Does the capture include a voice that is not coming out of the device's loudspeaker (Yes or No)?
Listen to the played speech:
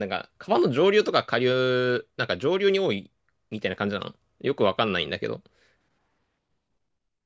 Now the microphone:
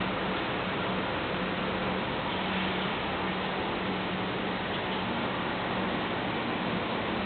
No